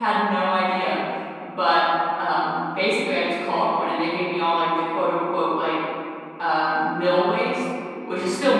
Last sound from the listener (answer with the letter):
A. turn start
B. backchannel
B